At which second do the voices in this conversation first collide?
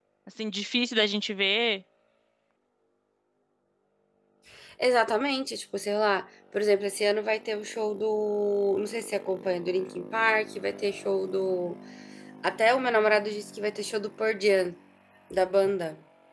none

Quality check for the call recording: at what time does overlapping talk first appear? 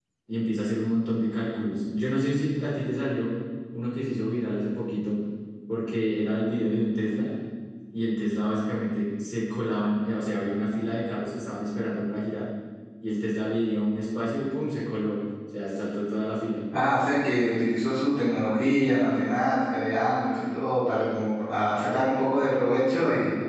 none

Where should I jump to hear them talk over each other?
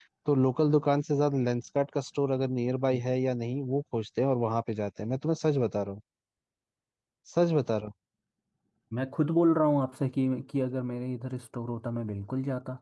none

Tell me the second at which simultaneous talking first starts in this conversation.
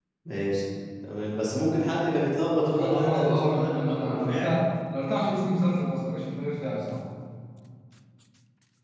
3 s

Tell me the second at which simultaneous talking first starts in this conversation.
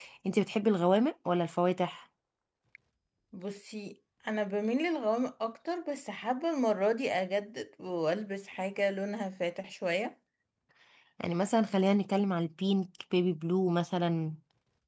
none

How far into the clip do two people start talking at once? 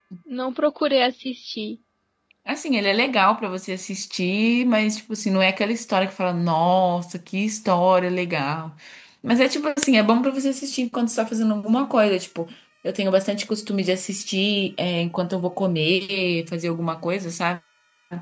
none

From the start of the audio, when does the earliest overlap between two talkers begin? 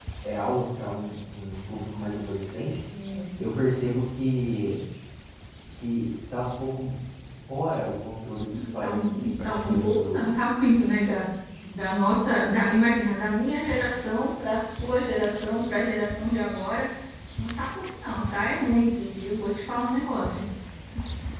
9 s

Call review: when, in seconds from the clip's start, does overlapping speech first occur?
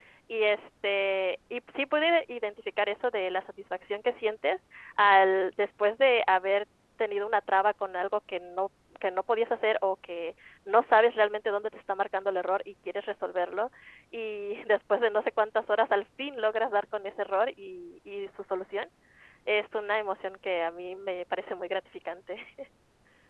none

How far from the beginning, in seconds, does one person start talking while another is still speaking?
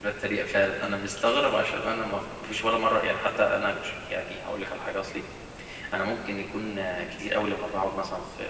none

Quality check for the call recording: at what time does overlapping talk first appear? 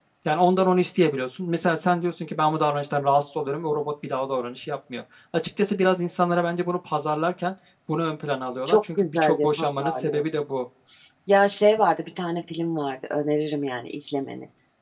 9 s

